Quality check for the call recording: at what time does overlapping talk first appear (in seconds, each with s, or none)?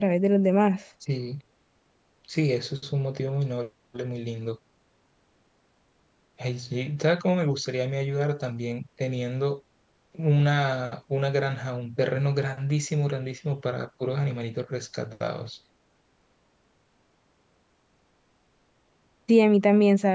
none